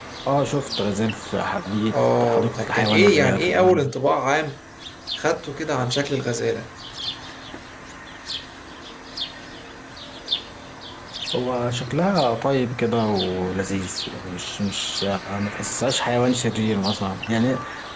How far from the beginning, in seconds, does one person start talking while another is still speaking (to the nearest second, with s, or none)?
2 s